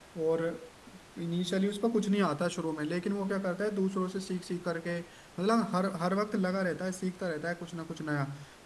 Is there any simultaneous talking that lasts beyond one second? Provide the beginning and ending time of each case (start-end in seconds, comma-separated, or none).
none